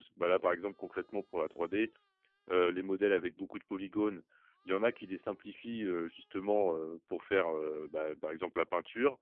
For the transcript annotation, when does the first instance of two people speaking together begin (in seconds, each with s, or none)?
none